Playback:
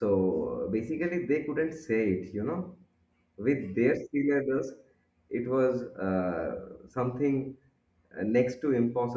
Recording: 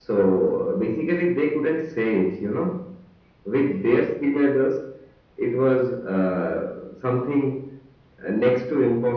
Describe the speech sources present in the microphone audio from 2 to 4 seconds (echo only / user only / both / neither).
echo only